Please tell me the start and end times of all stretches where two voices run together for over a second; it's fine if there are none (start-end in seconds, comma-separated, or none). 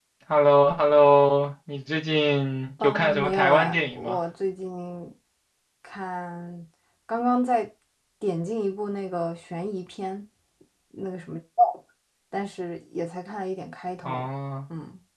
2.8-4.2